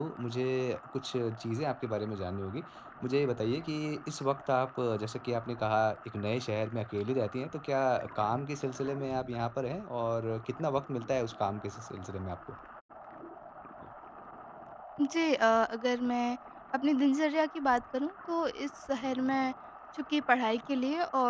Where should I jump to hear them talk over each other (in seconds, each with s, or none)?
none